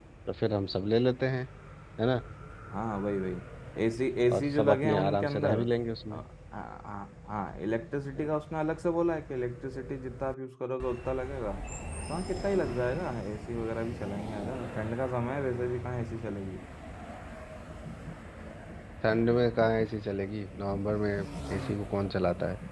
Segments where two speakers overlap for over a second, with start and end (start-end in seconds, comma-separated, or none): 4.3-5.6